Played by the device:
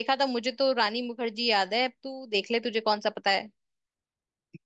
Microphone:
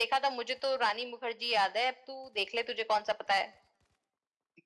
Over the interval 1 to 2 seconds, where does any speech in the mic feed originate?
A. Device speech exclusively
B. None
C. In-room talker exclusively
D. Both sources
A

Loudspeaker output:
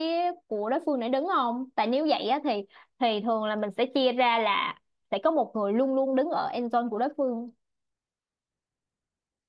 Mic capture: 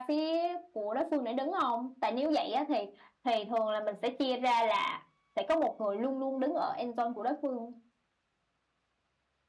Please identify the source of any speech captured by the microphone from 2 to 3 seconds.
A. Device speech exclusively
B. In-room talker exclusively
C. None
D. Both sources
A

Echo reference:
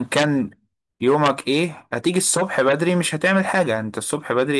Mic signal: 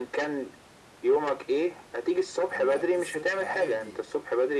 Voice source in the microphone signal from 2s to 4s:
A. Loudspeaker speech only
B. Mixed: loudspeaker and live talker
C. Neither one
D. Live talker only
B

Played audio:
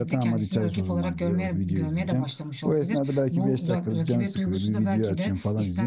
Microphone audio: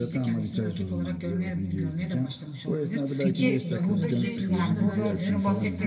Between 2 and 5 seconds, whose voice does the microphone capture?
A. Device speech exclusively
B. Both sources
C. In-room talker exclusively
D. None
B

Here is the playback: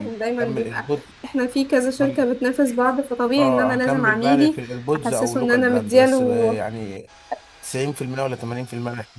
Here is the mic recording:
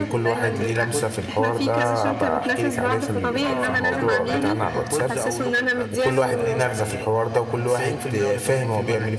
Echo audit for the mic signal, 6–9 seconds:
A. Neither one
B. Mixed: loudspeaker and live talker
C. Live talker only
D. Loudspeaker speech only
B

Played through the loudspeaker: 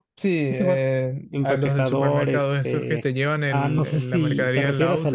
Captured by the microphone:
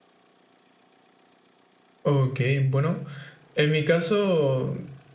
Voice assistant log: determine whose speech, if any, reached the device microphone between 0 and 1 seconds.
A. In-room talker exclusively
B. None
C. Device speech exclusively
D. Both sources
B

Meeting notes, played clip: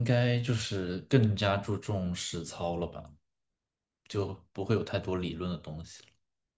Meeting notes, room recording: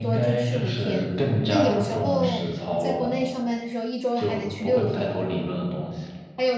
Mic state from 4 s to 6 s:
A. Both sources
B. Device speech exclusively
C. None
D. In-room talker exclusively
A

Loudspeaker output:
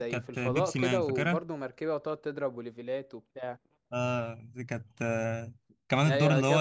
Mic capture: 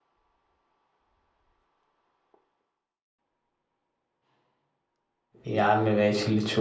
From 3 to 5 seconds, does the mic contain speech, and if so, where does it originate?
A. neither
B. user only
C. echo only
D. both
A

